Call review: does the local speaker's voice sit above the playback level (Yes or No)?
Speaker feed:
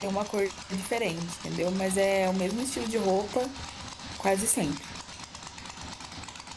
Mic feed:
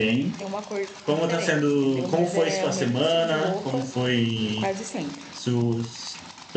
Yes